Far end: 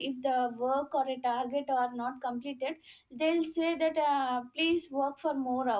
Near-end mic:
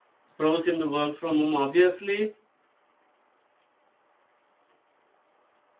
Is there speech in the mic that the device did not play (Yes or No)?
Yes